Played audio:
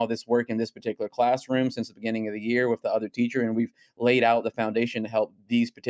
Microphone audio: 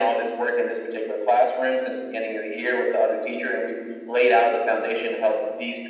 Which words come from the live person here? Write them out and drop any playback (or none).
none